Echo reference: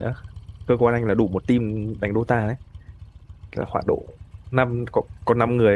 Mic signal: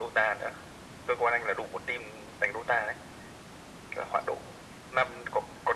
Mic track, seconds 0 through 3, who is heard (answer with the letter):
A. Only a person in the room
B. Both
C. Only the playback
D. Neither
C